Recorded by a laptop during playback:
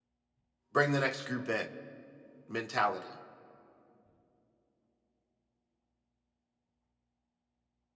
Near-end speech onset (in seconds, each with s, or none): 0.7 s